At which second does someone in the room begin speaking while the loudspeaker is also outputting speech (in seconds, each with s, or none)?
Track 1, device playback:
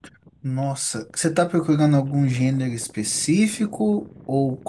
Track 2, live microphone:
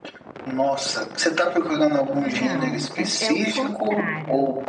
2.1 s